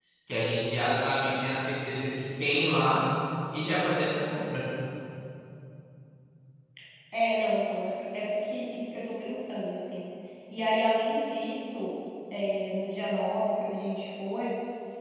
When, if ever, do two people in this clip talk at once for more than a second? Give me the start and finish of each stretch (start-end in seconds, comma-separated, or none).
none